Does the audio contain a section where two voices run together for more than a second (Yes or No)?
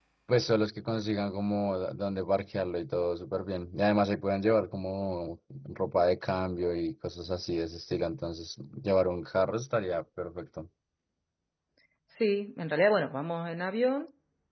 No